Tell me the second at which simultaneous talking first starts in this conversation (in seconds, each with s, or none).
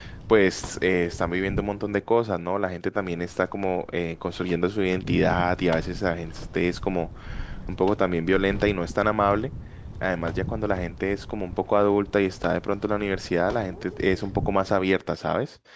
none